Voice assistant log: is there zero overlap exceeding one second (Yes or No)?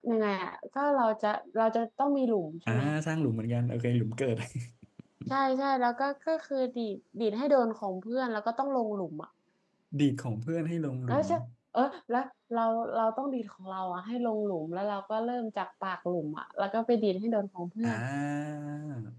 Yes